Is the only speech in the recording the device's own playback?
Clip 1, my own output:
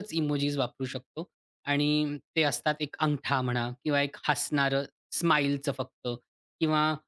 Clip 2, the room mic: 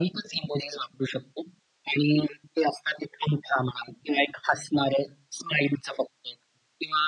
Yes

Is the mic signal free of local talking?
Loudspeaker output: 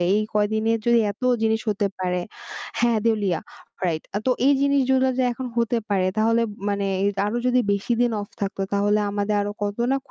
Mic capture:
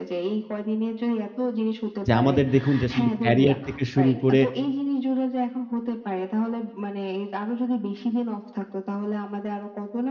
No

